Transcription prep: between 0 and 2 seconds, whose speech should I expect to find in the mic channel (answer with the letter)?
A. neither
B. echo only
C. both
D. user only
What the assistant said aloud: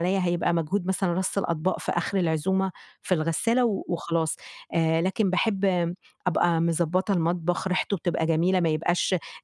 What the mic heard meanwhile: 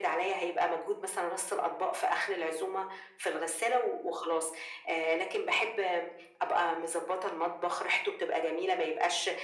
B